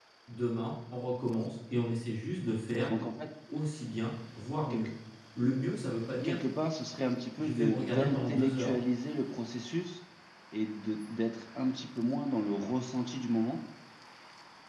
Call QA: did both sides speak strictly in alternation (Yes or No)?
No